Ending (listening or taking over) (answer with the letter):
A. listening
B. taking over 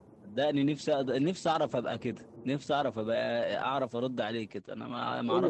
B